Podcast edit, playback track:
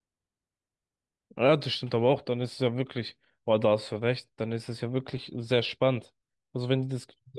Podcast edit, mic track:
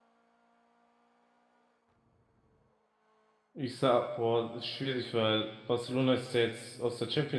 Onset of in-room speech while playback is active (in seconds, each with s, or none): 3.5 s